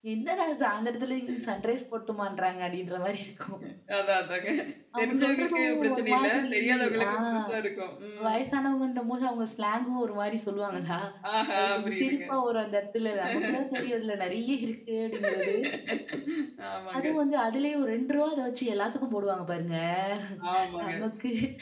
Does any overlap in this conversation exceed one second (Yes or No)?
Yes